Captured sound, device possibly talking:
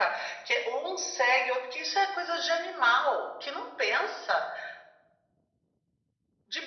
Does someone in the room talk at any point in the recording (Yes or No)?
No